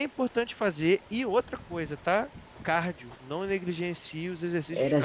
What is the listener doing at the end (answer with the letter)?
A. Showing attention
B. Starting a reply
B